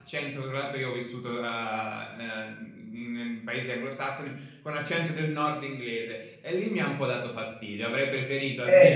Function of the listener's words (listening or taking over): listening